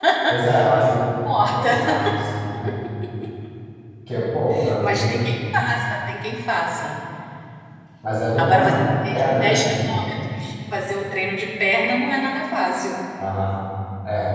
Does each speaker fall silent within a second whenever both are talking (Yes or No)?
No